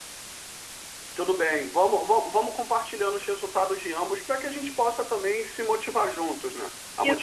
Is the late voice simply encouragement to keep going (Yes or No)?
No